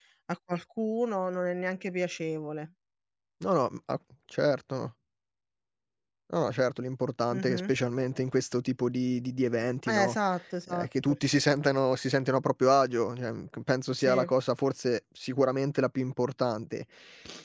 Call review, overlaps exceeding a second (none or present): none